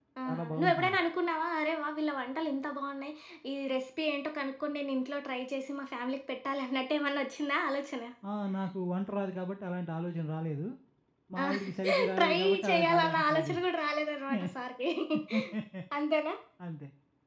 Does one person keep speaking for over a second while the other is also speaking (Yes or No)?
Yes